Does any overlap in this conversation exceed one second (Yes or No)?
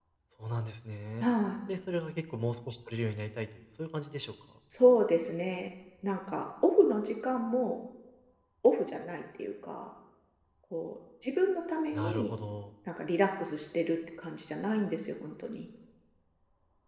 No